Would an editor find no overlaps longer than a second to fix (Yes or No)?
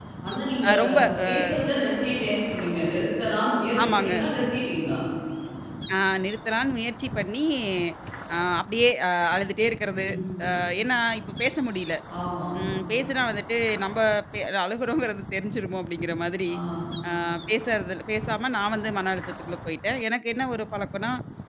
Yes